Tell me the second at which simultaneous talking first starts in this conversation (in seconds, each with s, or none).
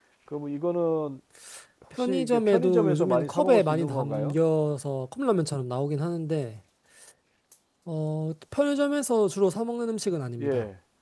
2.0 s